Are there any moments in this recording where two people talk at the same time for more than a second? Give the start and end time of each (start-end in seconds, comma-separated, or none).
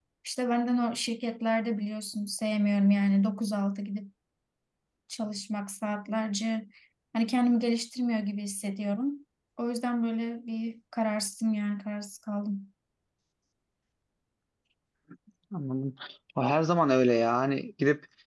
none